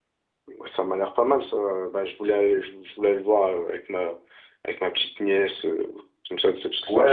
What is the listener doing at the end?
taking over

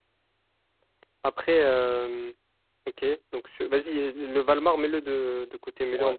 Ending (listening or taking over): listening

